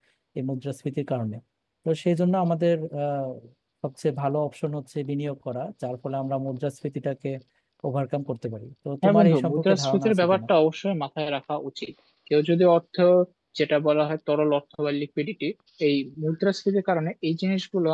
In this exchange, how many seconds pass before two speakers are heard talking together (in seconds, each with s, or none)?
9.0 s